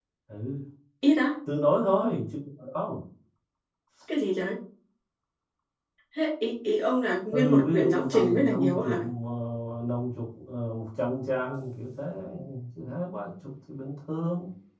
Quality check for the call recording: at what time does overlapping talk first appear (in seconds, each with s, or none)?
7.3 s